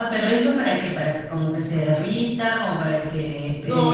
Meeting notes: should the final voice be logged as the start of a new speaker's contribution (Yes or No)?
Yes